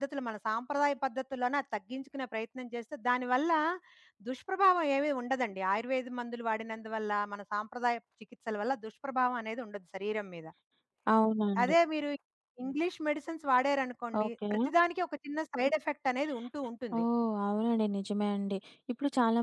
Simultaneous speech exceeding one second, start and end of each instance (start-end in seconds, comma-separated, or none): none